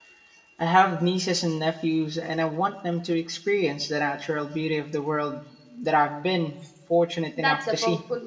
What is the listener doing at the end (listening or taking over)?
taking over